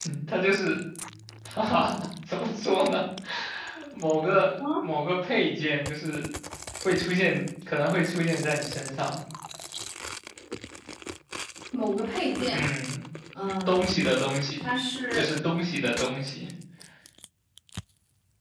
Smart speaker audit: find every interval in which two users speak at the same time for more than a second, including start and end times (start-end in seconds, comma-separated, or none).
none